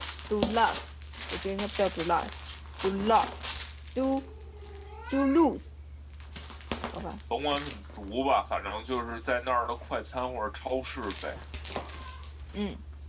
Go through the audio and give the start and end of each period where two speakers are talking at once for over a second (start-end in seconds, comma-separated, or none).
none